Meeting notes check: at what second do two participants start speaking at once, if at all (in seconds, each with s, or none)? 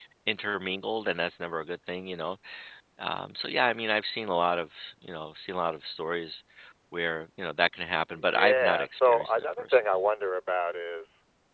8.2 s